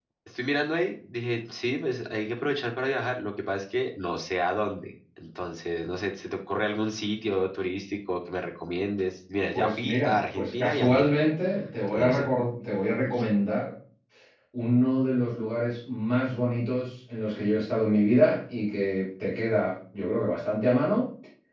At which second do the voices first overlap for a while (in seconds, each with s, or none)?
9.5 s